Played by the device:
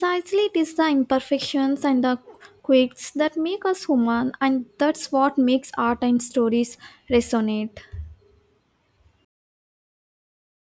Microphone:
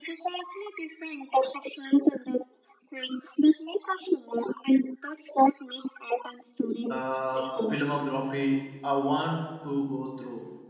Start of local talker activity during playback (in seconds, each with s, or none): 6.9 s